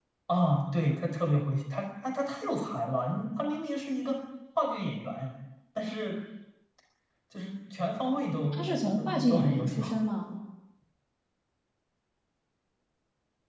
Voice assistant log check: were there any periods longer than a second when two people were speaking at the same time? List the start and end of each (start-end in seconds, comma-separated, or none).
8.5-9.8